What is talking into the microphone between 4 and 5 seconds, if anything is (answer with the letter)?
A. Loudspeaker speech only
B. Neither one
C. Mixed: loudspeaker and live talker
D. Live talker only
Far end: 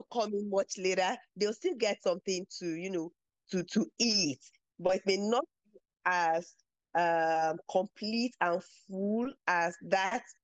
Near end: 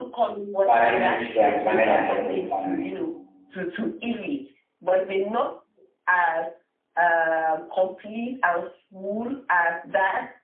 A